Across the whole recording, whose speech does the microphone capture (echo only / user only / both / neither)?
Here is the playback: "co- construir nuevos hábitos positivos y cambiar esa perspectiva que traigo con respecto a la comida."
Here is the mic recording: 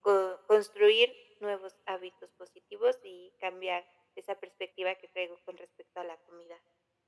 echo only